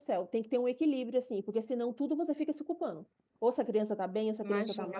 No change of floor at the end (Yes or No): Yes